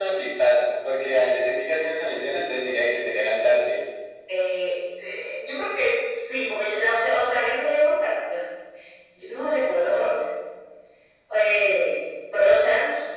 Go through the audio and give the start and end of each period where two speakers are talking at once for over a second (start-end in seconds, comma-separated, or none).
none